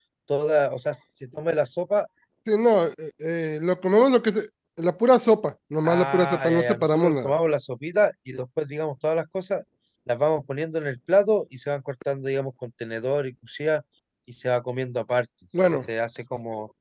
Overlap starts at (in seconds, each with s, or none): 5.8 s